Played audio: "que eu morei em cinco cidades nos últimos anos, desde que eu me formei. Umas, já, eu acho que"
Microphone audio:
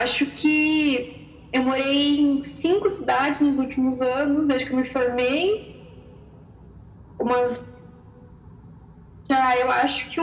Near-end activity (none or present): none